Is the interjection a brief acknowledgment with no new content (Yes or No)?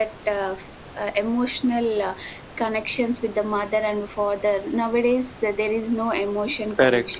No